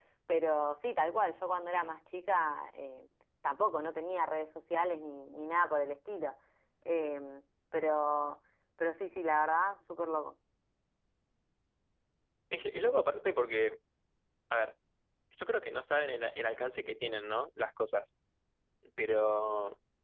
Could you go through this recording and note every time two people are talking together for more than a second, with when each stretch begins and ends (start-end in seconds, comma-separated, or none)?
none